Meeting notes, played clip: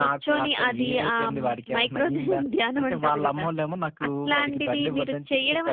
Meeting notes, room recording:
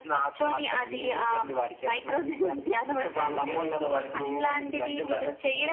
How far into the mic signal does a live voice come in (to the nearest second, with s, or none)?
3 s